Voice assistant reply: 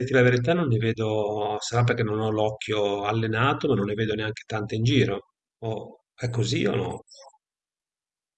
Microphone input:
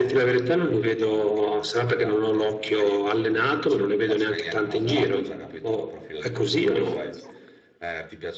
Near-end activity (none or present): present